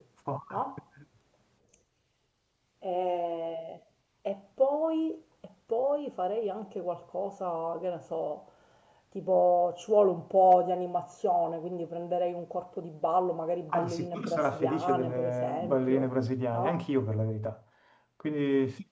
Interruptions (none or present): present